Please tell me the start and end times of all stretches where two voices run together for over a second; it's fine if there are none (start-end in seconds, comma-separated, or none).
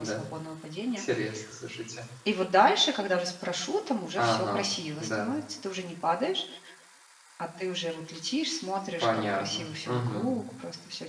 9.0-10.3